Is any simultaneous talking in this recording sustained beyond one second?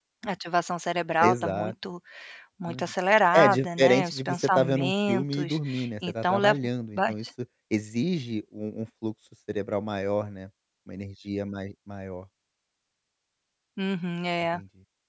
Yes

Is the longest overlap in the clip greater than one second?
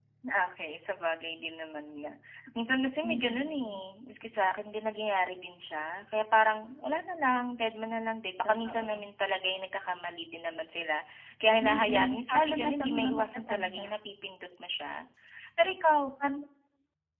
Yes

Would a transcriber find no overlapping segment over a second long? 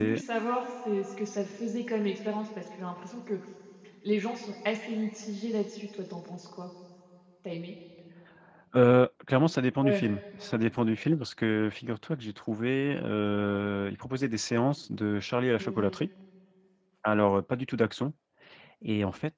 Yes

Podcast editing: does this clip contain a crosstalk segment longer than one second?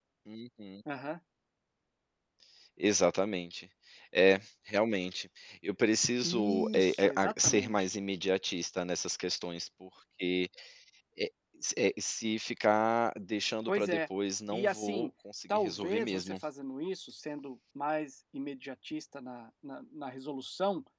Yes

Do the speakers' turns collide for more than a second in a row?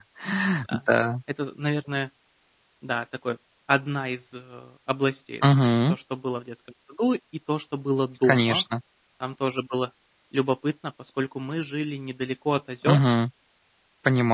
No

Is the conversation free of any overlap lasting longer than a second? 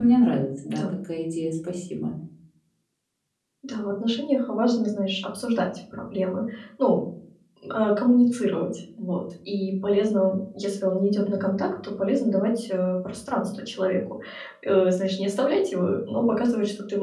Yes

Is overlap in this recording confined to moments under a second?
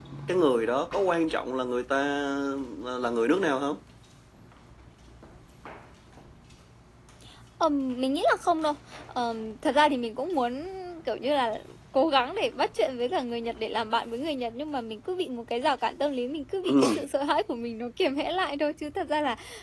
Yes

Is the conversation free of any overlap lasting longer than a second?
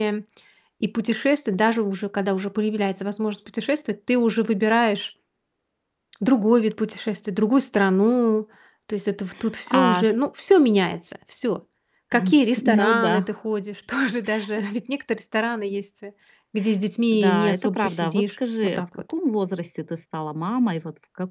No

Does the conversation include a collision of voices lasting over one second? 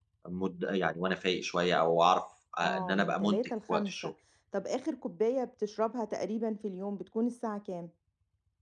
Yes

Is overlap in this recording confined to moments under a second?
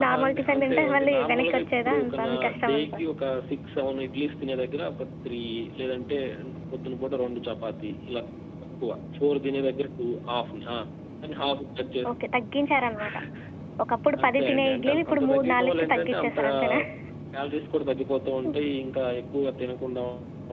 No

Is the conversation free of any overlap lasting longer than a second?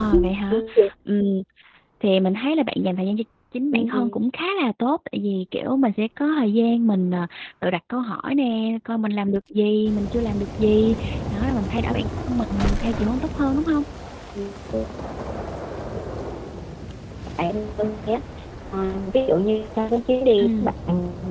Yes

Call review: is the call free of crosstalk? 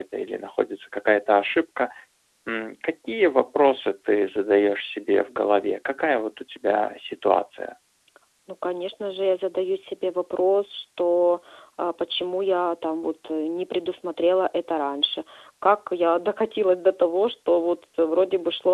Yes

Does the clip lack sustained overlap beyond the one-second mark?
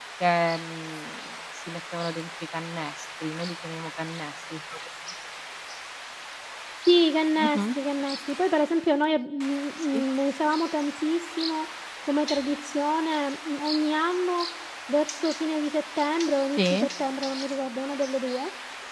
Yes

